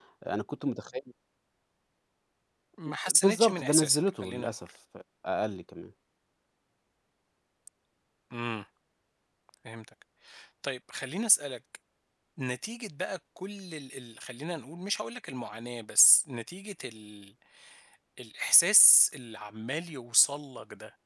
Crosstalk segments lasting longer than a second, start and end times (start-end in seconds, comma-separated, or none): 3.1-4.5